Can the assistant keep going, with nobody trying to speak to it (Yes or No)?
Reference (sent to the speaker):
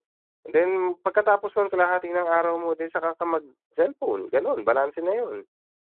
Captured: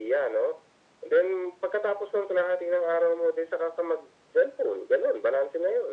Yes